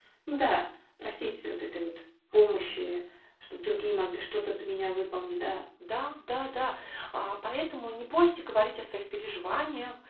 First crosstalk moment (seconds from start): none

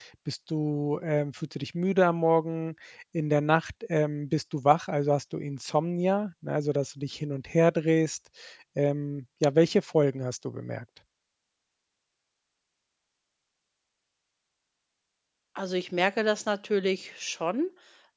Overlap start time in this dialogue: none

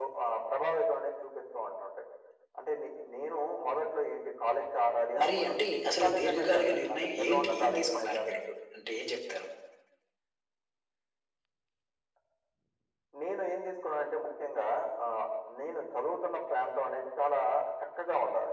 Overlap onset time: 5 s

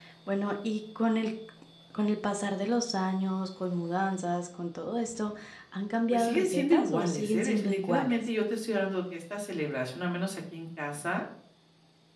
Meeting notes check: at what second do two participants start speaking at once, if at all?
6 s

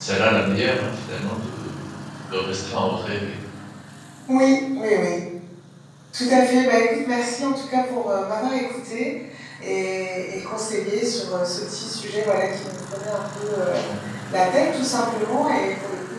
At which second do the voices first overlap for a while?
none

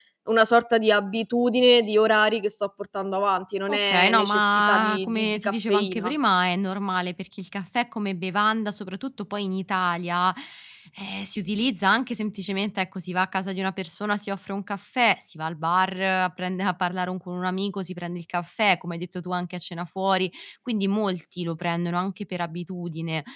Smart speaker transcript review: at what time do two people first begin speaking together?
4 s

